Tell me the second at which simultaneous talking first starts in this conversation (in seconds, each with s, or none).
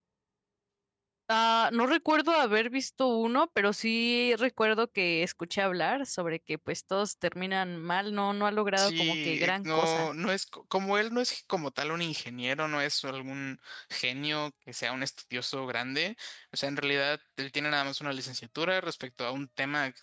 8.8 s